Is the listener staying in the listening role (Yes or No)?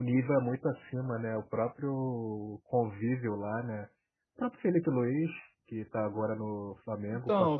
No